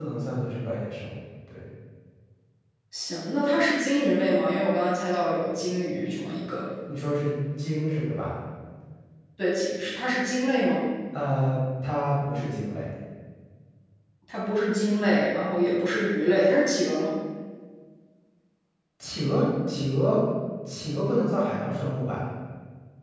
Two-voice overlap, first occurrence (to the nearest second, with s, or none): none